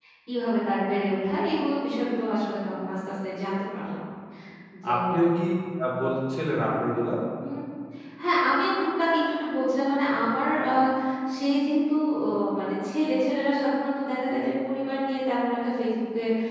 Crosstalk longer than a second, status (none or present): none